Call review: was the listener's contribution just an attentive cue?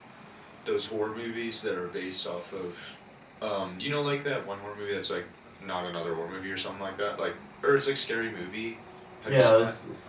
No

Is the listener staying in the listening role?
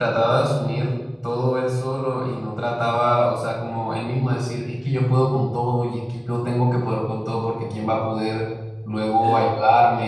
Yes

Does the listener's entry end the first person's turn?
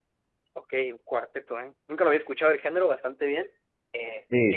No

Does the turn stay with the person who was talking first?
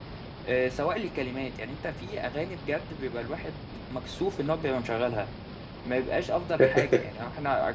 Yes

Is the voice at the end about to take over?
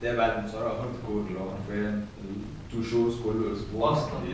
No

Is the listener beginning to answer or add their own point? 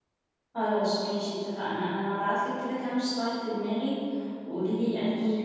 No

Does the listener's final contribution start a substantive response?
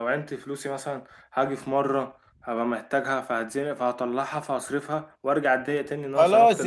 Yes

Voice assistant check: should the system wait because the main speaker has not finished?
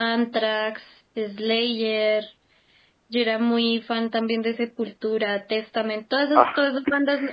Yes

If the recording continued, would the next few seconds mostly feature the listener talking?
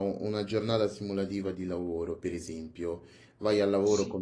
No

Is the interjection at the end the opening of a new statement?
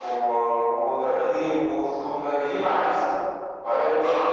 Yes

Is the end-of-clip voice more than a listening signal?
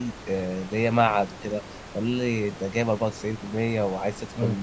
No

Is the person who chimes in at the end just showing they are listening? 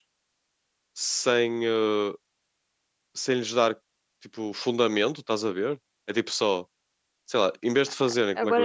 No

